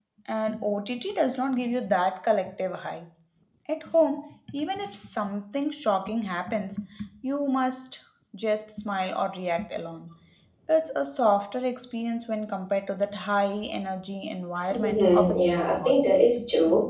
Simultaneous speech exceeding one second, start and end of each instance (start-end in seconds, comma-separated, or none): 14.7-16.0